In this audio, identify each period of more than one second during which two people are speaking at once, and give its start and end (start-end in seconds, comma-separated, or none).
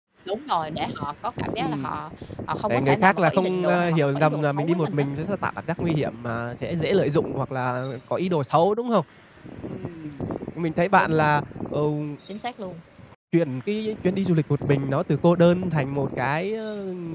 2.7-5.1